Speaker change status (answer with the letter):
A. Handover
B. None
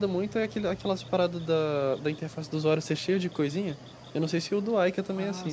A